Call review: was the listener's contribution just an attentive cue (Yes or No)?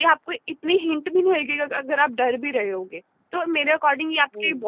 Yes